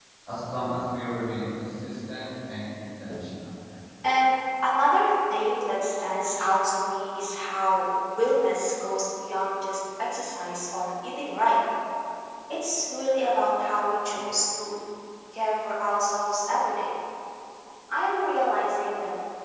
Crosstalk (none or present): none